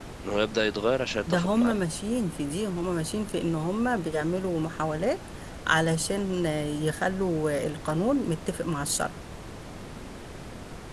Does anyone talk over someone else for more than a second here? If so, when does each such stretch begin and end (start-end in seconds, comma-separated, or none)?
none